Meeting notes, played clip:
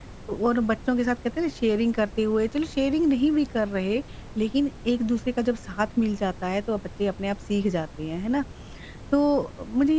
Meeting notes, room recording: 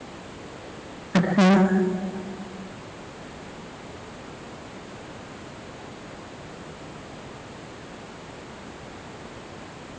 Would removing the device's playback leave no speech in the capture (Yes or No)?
No